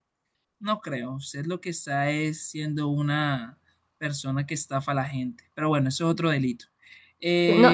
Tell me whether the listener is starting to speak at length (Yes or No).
Yes